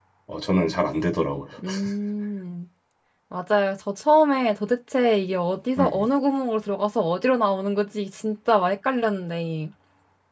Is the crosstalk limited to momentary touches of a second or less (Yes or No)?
Yes